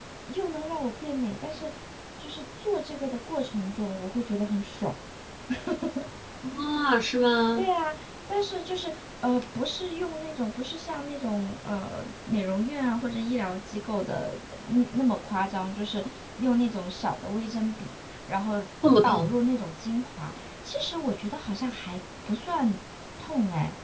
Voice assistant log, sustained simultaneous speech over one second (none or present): none